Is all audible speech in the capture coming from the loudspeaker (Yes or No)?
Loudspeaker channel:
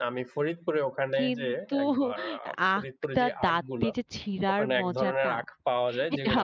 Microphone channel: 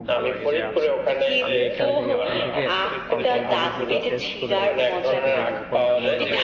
No